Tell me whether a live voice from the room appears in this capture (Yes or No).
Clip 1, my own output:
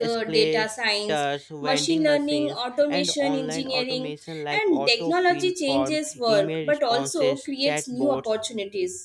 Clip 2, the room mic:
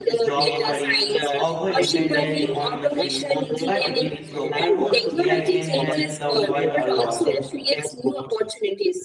Yes